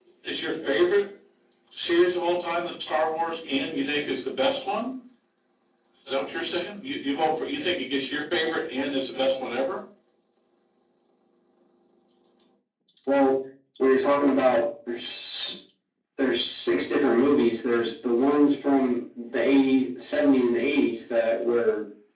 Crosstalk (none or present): none